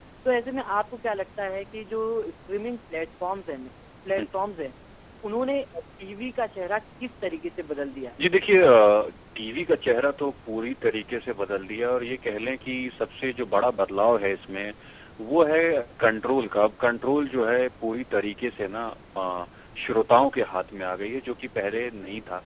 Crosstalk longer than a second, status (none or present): none